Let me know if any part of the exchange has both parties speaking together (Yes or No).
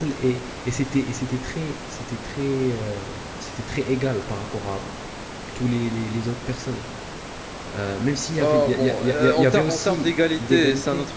Yes